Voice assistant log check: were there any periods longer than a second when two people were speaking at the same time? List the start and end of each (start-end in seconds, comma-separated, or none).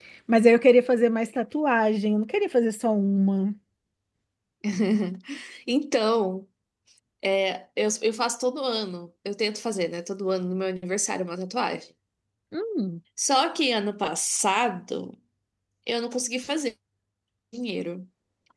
none